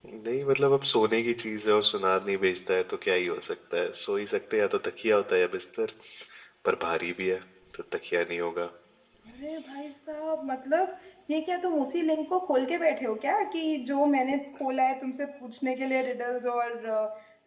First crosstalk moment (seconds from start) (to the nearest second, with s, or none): none